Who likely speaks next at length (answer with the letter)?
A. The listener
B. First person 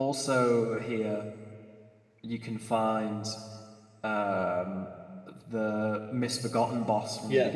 A